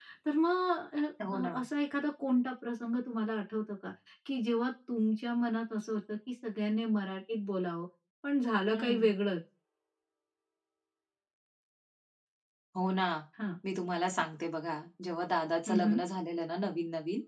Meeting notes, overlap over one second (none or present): none